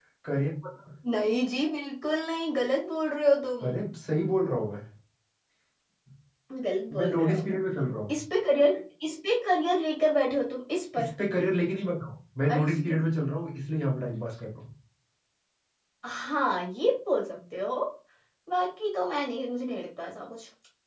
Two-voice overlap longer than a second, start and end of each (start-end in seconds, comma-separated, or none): none